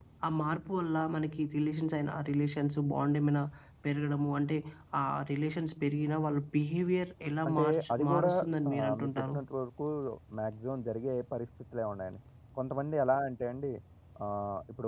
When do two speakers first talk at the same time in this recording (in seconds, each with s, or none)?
7.4 s